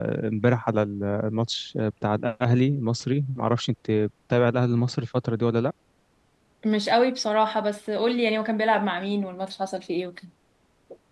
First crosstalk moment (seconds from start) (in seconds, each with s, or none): none